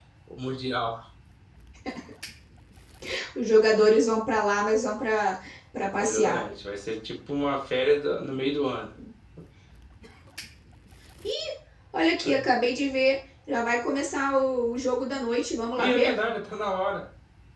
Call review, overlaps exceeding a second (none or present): none